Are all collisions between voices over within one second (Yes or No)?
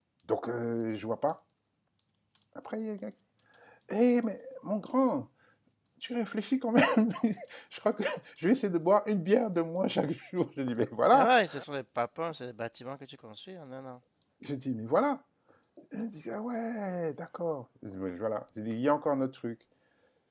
Yes